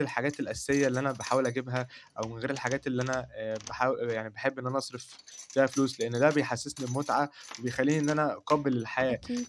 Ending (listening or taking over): listening